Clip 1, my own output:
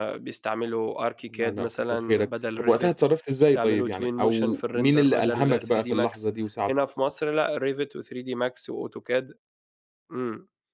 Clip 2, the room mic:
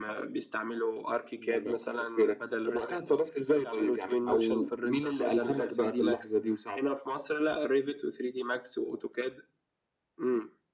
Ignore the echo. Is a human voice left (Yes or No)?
No